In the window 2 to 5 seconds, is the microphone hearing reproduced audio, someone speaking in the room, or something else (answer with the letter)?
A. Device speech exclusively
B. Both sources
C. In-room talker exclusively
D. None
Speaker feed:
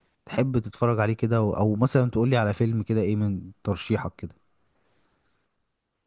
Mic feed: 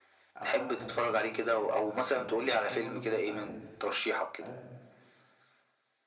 B